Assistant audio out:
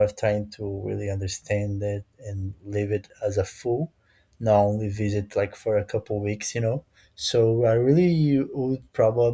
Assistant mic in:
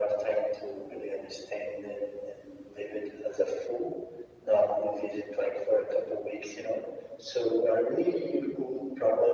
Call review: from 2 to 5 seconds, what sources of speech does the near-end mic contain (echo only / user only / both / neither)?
echo only